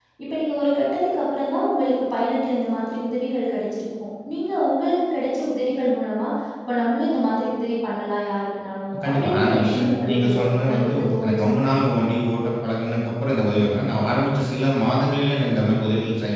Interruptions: present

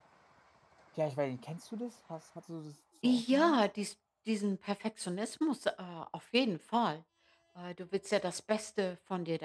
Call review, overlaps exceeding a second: none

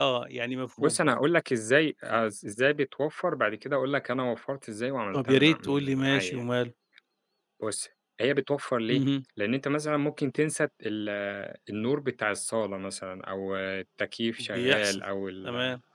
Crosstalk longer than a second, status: present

